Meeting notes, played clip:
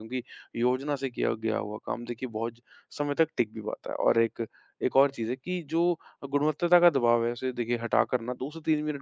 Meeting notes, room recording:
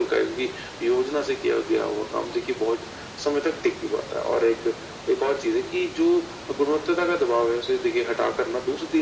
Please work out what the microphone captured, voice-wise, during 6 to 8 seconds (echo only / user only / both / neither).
echo only